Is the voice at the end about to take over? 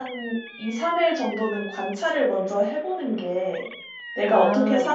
No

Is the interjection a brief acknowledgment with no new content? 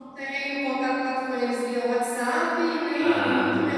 Yes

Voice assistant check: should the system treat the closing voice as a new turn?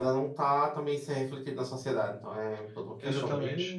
Yes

